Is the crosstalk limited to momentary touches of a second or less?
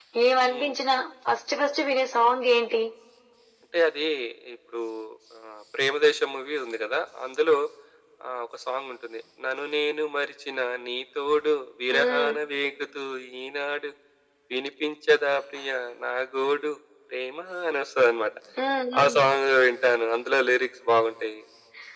Yes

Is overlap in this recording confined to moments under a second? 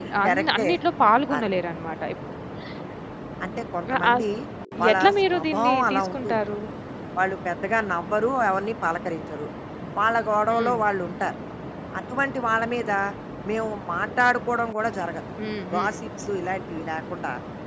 No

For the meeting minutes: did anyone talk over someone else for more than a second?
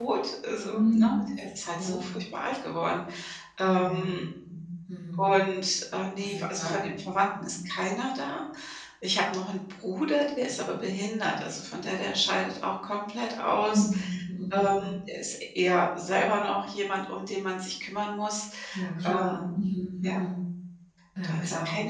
Yes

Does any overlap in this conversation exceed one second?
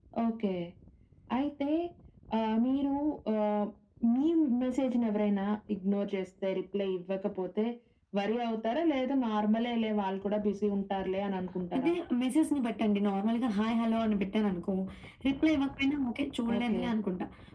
No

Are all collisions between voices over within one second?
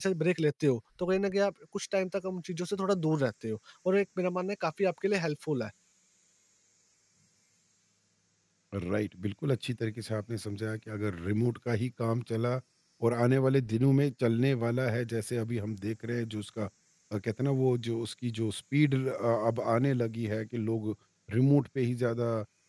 Yes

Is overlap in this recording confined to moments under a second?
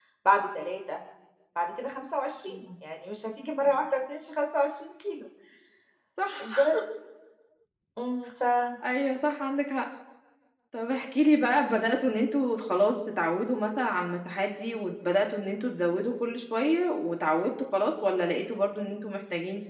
Yes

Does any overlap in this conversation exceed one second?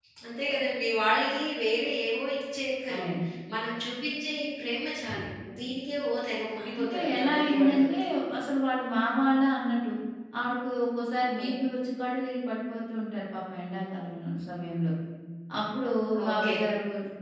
Yes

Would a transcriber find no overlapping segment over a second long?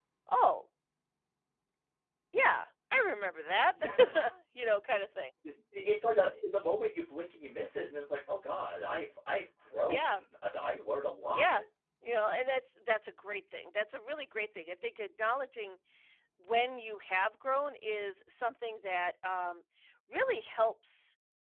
Yes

